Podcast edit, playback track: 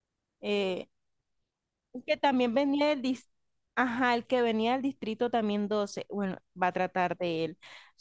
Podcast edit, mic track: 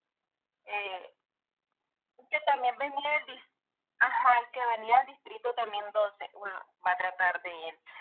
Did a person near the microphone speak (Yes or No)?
No